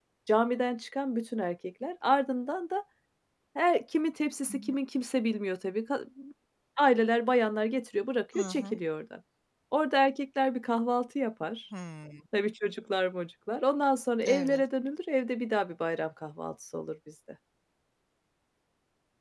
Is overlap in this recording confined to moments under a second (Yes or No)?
Yes